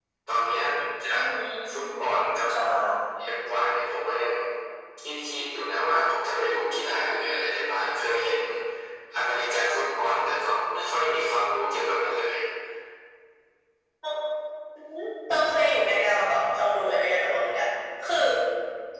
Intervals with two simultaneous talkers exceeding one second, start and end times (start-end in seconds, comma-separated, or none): none